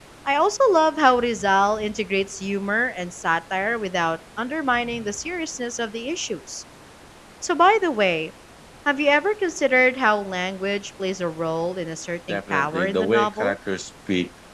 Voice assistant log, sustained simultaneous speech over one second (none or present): present